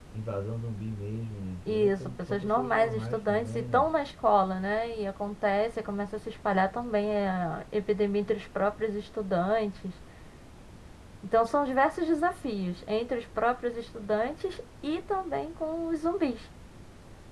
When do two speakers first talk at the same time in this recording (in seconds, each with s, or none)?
1.7 s